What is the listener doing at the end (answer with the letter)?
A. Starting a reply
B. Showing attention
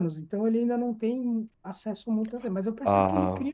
B